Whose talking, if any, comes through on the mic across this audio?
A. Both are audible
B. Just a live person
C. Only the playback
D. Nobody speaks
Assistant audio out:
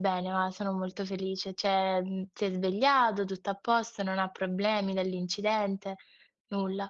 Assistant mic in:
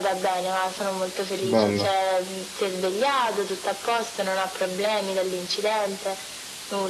A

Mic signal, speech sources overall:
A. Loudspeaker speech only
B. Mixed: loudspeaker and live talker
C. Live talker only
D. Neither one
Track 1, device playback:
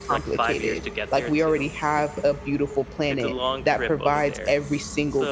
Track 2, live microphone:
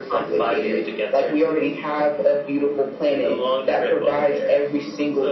A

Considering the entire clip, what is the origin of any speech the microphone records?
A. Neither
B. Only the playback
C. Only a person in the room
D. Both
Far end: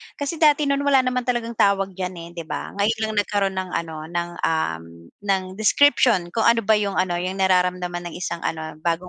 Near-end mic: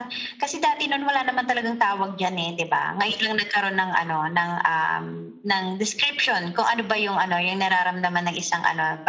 B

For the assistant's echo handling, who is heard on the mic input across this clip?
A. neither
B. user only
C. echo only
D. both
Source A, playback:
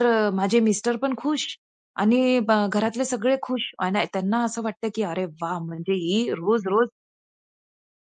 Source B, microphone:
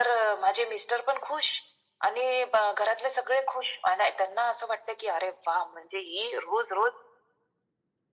C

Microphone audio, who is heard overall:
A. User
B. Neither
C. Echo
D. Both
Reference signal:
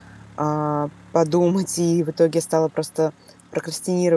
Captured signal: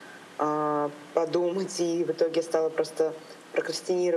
C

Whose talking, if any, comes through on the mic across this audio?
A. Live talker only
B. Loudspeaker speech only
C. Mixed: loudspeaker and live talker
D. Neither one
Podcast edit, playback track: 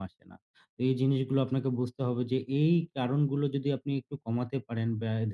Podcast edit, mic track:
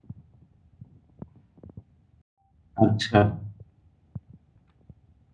A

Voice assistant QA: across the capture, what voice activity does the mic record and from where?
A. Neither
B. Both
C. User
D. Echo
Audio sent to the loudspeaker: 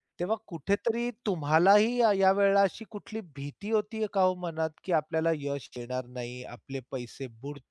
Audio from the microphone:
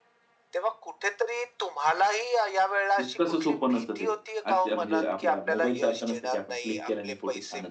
B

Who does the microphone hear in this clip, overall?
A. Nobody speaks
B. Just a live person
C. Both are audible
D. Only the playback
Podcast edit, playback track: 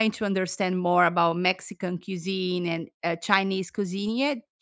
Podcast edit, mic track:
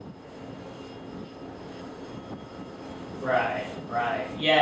B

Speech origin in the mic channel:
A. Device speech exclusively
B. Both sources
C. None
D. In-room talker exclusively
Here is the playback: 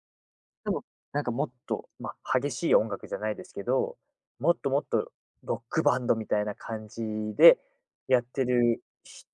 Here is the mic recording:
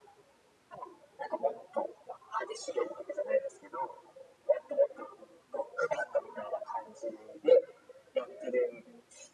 A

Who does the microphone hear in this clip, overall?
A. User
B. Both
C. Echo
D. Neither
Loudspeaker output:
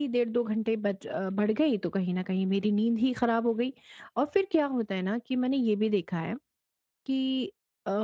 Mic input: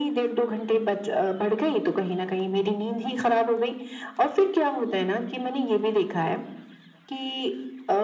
C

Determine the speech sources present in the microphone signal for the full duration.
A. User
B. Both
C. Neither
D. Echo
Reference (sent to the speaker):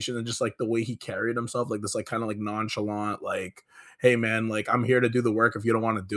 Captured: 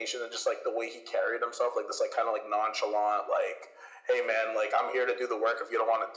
D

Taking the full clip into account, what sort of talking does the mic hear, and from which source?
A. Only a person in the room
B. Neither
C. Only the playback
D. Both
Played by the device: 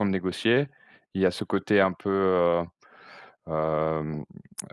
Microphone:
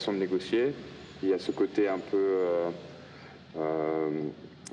C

